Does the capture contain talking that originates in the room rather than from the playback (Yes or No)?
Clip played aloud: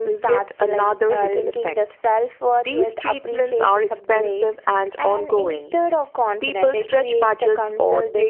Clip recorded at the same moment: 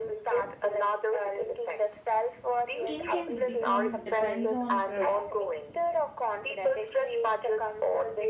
Yes